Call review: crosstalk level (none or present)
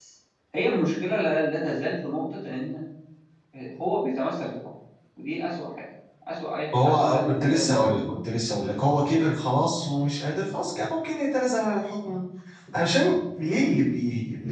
present